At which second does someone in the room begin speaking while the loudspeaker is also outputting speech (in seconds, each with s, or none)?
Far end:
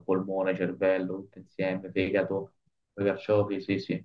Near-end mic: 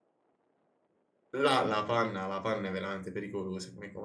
1.4 s